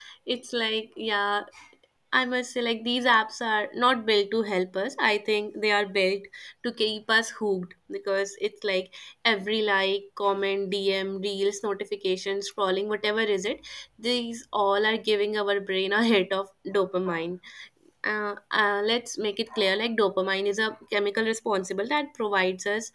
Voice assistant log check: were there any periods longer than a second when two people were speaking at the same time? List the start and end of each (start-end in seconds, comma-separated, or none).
none